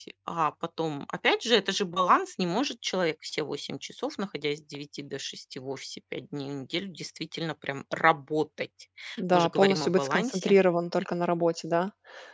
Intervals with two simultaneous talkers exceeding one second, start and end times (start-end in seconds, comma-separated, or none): 9.3-10.5